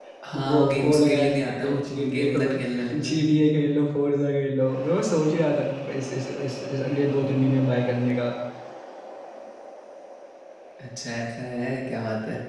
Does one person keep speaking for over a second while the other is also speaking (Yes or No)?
Yes